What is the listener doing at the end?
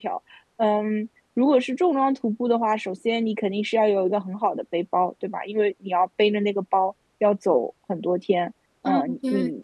taking over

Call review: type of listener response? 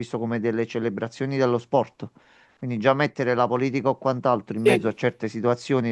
listening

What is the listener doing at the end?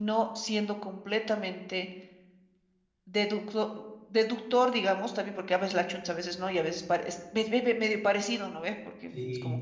listening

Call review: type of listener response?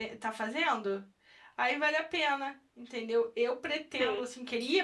listening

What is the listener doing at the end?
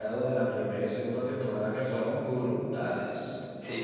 taking over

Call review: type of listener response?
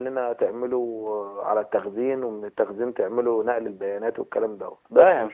taking over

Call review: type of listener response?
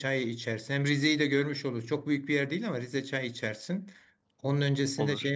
listening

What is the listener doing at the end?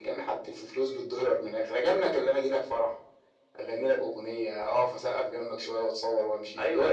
taking over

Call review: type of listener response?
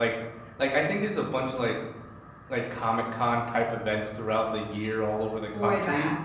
listening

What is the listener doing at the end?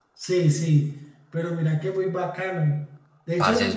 listening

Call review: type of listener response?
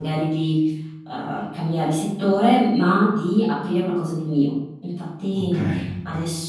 listening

